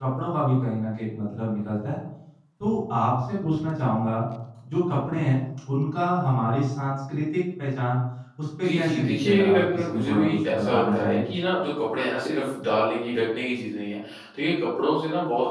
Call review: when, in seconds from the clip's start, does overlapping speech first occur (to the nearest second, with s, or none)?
9 s